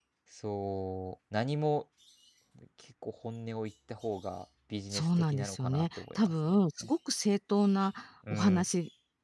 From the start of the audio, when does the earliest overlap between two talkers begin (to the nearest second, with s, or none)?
5 s